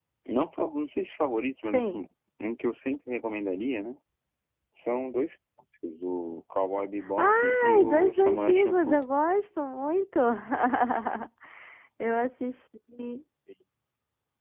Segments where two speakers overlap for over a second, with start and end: 7.2-9.0

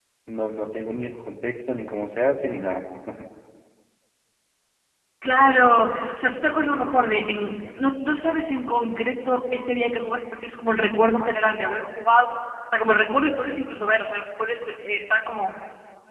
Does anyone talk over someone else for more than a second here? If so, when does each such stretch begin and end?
none

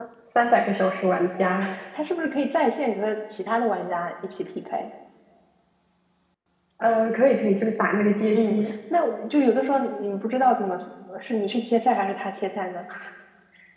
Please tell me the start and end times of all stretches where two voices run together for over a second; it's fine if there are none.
none

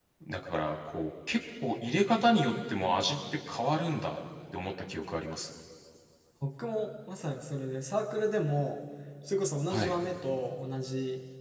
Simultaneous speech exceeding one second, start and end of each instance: none

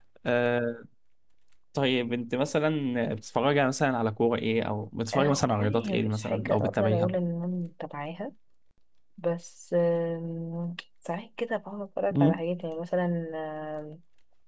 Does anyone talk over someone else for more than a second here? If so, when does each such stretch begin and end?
5.1-7.1

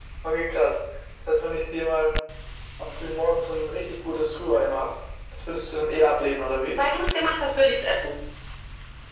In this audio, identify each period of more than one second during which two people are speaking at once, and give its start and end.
none

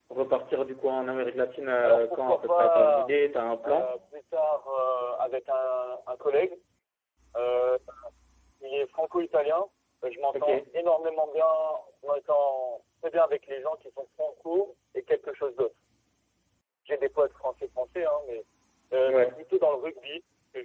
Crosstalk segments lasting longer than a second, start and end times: 1.8-3.1

